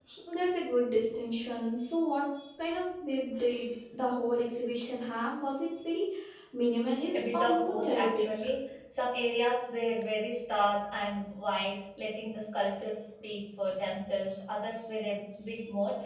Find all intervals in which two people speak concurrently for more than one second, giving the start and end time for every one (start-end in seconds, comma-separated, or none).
7.2-8.5